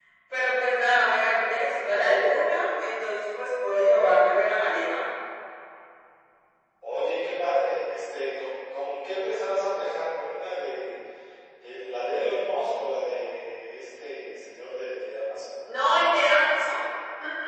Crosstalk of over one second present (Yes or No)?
No